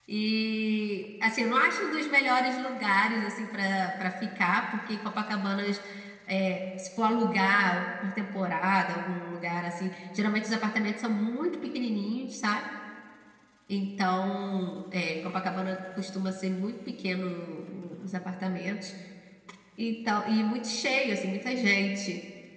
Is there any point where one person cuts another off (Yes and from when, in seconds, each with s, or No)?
No